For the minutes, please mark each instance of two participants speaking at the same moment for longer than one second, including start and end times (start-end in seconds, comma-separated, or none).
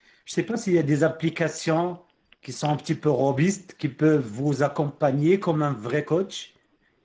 none